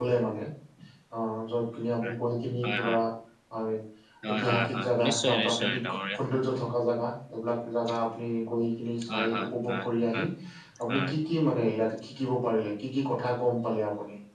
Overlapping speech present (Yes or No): Yes